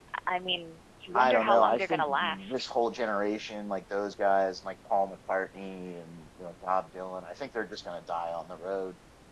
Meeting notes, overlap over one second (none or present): present